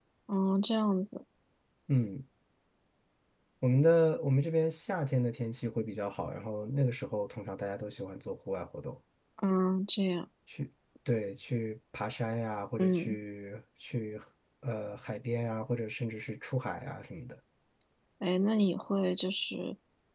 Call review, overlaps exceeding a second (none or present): none